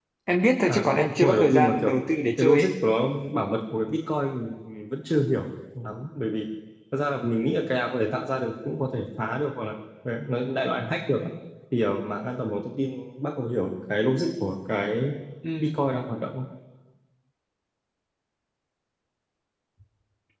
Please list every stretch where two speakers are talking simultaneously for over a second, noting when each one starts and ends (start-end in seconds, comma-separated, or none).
0.6-1.9